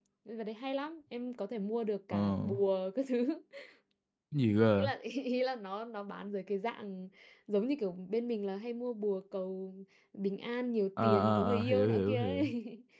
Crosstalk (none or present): present